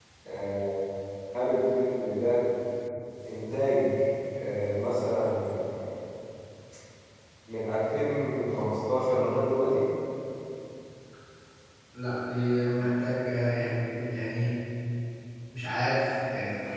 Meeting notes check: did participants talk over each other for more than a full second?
No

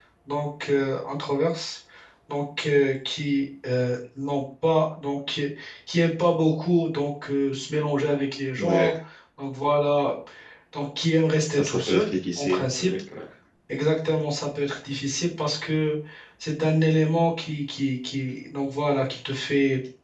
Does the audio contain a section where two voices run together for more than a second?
Yes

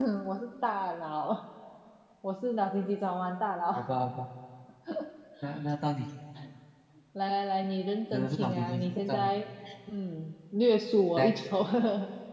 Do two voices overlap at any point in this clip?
Yes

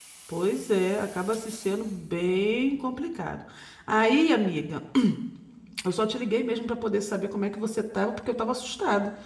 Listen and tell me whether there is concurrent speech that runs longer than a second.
No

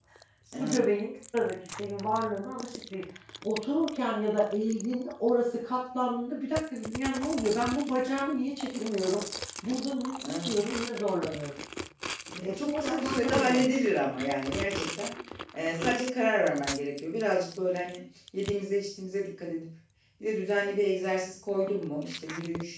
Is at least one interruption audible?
Yes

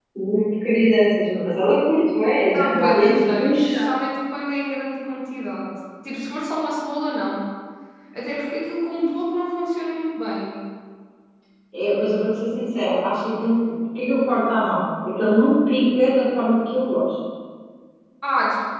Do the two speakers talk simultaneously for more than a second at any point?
Yes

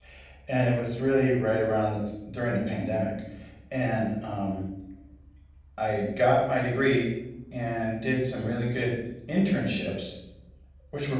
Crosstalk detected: No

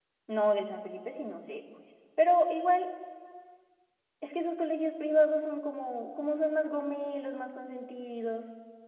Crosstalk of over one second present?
No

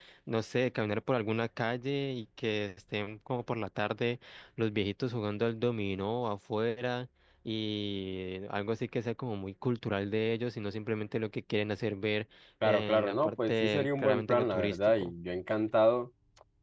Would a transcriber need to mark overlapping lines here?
Yes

